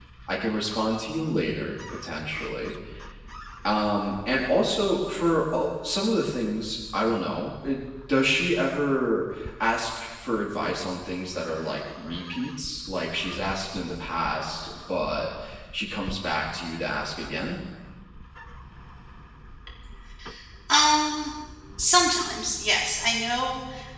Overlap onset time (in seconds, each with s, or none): none